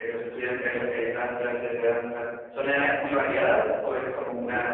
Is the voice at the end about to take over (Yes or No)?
Yes